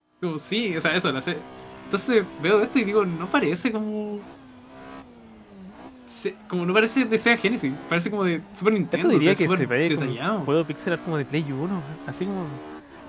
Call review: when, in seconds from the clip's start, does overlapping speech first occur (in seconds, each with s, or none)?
8.9 s